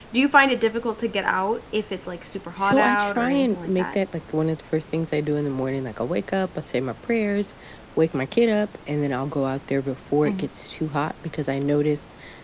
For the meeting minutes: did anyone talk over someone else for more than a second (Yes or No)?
Yes